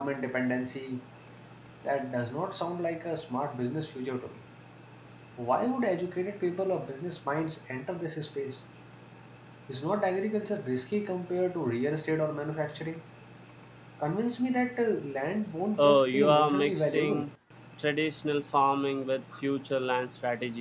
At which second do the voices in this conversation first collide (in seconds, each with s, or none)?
15.8 s